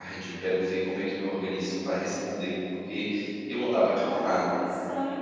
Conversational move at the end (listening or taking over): taking over